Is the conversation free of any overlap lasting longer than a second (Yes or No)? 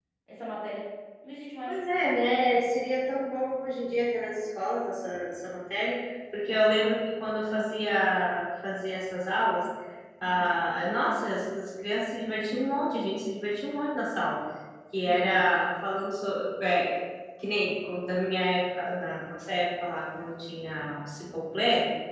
Yes